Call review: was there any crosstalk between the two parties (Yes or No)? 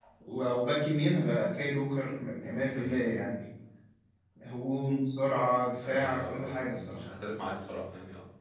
Yes